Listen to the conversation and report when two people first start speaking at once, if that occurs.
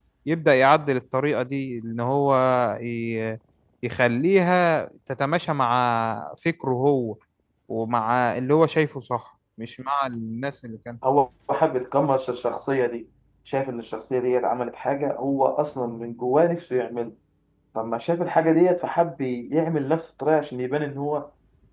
none

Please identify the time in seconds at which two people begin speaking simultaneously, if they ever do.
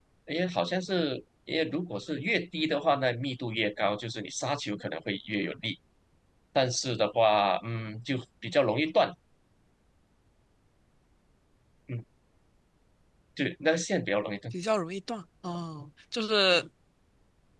none

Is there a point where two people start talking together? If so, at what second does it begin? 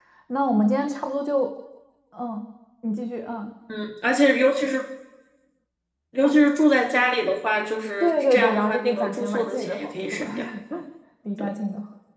8.0 s

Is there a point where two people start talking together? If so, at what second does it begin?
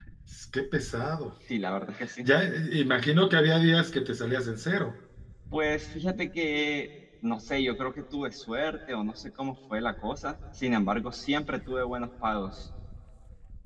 none

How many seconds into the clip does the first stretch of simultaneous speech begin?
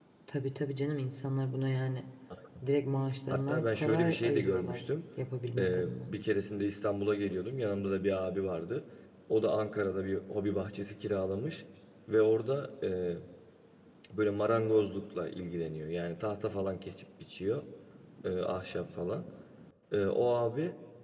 3.3 s

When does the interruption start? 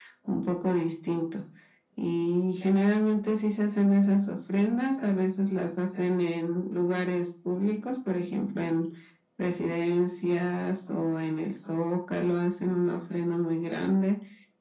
none

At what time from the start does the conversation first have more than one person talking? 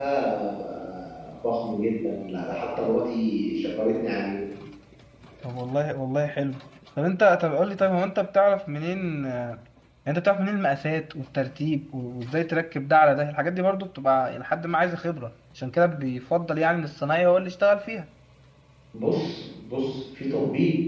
none

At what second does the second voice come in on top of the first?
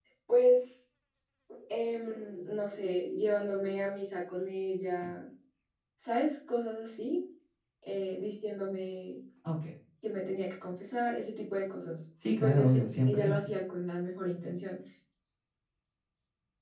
12.2 s

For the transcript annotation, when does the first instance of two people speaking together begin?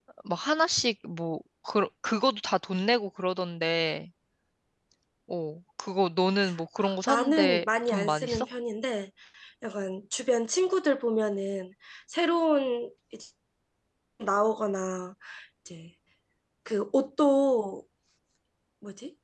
7.1 s

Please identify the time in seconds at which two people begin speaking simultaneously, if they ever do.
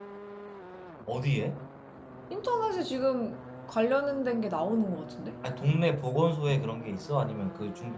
none

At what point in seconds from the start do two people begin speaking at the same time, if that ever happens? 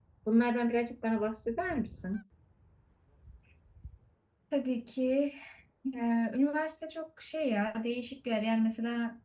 none

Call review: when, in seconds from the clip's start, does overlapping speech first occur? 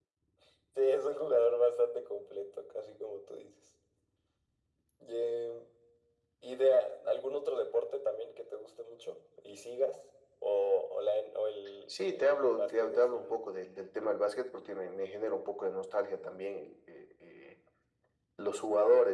12.1 s

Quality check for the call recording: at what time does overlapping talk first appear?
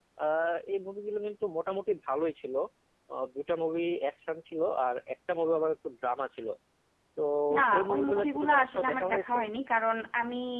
7.8 s

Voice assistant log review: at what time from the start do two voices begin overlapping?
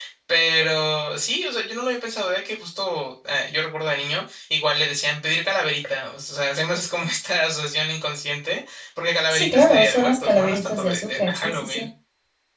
9.3 s

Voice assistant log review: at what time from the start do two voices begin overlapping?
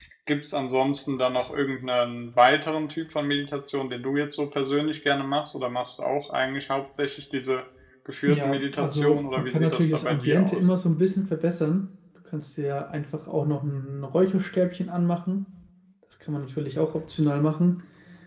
8.3 s

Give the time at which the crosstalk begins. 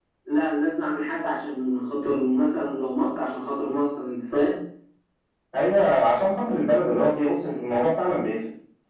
none

